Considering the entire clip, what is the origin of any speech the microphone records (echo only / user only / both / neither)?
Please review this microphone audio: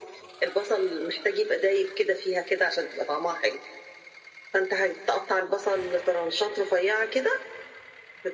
echo only